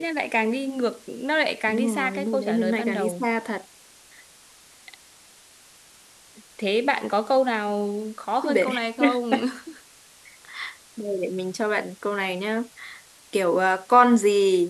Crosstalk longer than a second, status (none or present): present